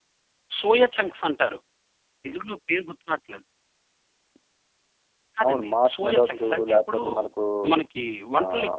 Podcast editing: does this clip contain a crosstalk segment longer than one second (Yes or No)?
Yes